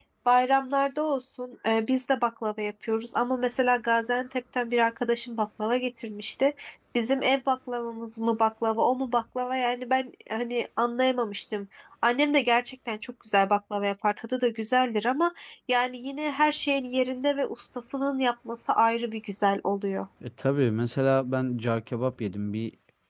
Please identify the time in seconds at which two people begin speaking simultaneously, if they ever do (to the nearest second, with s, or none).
none